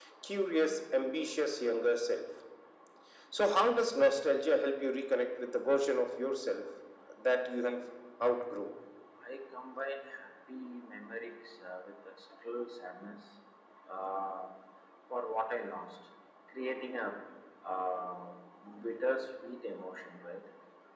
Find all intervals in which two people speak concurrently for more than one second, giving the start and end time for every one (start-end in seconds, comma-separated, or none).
none